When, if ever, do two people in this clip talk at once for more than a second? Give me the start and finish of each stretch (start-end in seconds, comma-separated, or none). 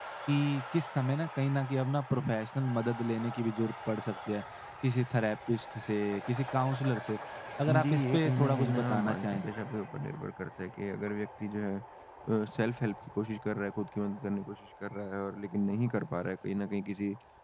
7.8-9.4